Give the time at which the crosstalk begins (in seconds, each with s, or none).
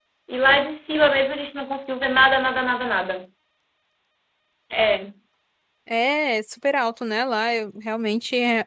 none